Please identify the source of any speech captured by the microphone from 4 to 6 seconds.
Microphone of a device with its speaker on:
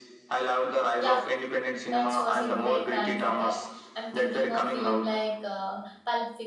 both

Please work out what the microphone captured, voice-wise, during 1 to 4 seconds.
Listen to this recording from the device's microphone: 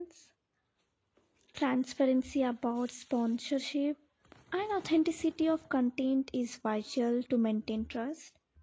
user only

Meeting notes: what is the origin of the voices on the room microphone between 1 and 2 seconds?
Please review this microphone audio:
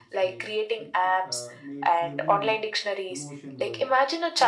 both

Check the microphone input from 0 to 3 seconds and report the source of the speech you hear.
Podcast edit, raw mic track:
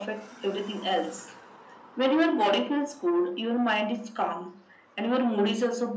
echo only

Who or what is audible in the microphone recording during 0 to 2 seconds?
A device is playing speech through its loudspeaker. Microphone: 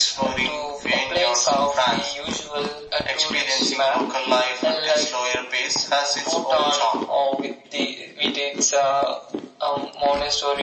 echo only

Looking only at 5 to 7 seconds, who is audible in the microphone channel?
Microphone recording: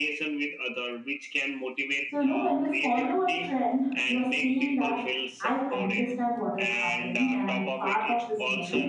both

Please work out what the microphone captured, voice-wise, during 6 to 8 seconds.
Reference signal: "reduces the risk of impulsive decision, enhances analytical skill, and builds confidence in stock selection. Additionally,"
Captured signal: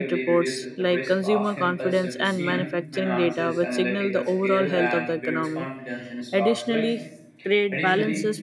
both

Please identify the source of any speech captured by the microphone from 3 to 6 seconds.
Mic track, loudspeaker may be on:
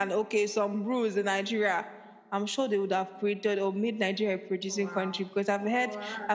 both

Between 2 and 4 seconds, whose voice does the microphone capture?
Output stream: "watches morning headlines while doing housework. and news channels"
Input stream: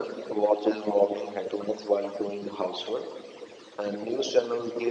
echo only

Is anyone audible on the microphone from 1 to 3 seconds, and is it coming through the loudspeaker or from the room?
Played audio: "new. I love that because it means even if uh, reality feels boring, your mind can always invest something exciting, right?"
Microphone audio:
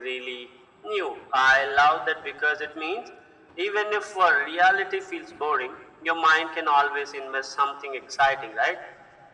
echo only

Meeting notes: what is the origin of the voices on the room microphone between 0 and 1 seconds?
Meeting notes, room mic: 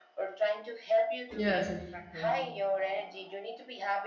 echo only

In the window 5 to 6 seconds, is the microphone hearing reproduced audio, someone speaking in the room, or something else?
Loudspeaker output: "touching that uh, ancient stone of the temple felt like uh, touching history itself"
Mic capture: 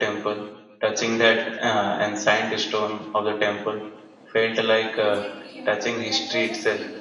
both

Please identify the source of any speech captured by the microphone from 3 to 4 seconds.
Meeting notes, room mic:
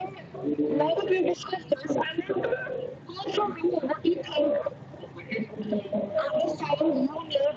echo only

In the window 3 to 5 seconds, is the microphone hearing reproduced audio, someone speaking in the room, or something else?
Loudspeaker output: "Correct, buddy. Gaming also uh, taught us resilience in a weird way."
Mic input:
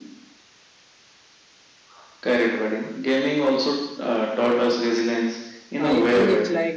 echo only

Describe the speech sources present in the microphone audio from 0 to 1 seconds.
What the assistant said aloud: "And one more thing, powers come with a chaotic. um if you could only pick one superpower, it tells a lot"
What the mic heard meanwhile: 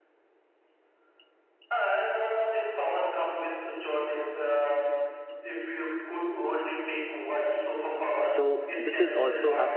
neither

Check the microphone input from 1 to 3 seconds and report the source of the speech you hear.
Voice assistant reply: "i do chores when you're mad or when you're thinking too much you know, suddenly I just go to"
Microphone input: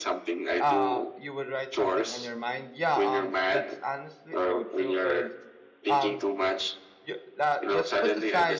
both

